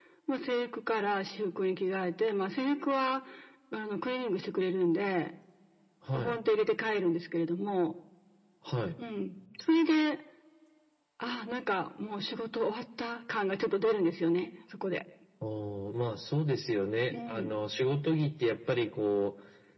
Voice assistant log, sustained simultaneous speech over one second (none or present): none